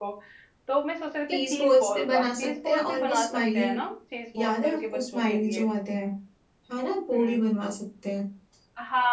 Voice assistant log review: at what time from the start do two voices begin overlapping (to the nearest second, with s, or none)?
1 s